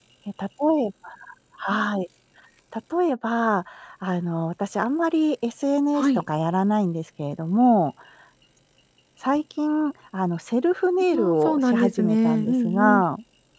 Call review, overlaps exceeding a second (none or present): present